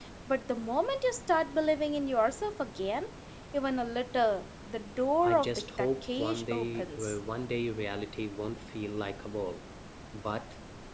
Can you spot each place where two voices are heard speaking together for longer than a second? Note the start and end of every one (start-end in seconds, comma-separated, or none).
5.2-7.2